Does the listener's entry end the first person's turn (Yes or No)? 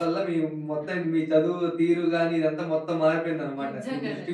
Yes